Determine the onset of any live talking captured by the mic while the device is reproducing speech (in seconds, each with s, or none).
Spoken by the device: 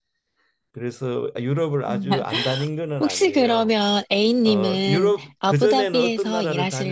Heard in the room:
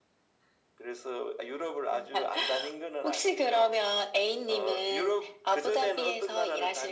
none